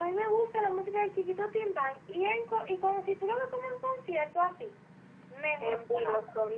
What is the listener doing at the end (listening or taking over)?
taking over